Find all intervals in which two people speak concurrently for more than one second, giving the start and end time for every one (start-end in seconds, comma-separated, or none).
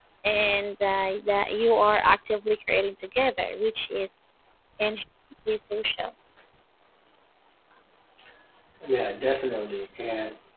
none